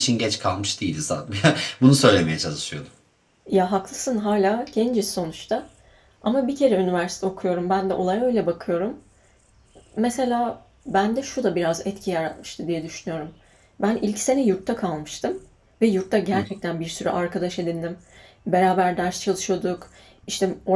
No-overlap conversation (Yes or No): Yes